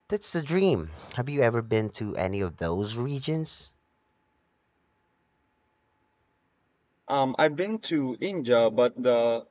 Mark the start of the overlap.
none

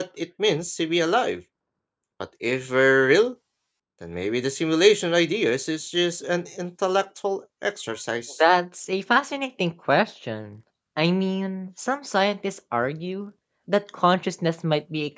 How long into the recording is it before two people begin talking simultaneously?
none

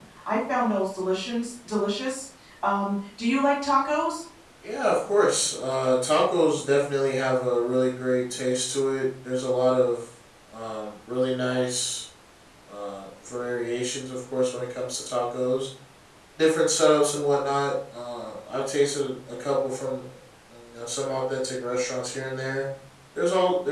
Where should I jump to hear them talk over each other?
none

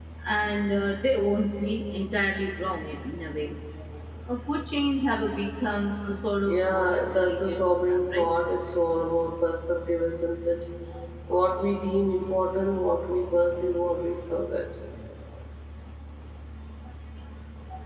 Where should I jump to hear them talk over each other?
6.5 s

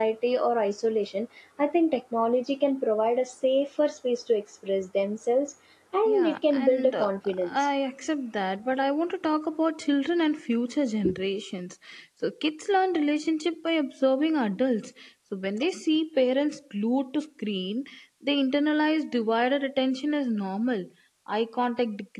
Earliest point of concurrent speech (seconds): 6.0 s

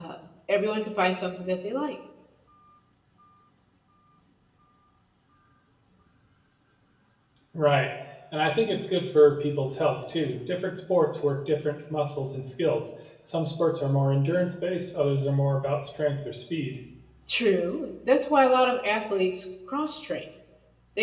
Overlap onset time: none

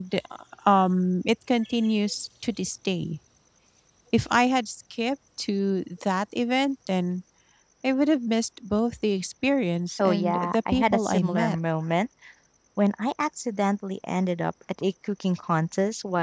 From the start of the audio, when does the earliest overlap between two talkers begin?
10.0 s

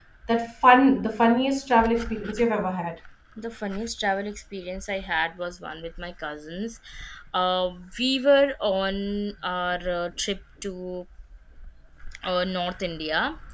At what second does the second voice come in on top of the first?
none

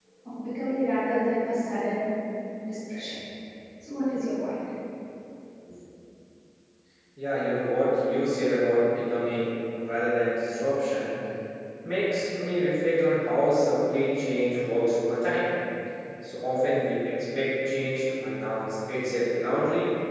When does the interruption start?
none

